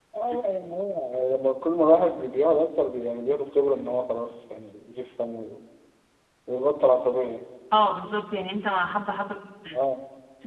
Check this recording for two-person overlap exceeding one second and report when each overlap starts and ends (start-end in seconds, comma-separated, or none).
none